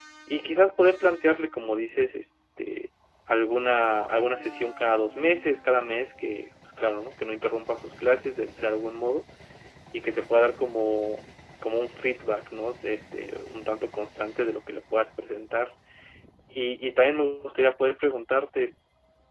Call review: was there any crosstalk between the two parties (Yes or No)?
No